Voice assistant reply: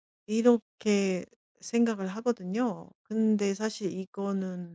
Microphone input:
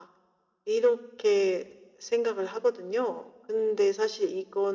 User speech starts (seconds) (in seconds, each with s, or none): none